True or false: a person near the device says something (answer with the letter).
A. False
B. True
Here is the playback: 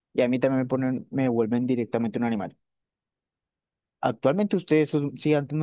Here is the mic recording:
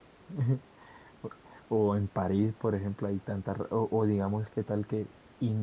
B